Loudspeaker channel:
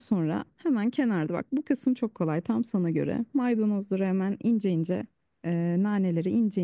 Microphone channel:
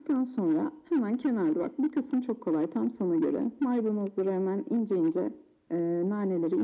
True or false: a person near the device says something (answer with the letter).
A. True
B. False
B